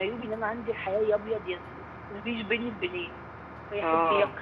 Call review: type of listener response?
listening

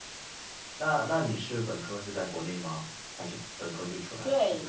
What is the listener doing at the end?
taking over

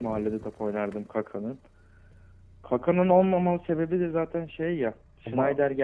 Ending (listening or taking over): listening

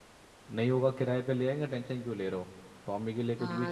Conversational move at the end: taking over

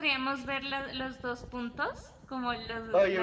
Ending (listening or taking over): taking over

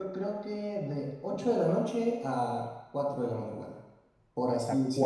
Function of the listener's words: taking over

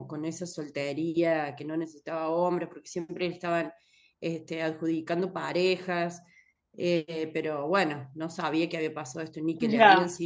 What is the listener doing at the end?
taking over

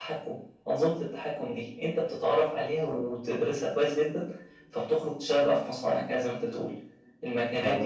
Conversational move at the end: listening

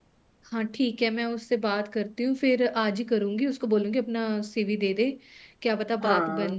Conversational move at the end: listening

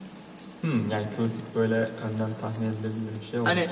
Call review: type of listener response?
taking over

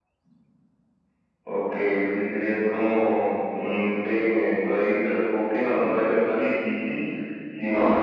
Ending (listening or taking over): listening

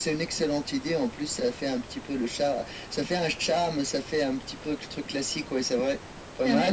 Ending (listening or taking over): taking over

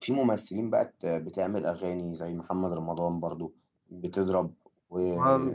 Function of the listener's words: listening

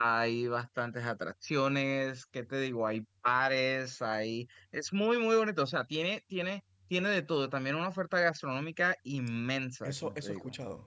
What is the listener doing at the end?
taking over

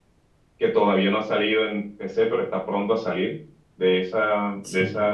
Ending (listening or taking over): listening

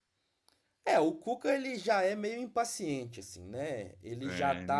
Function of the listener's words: listening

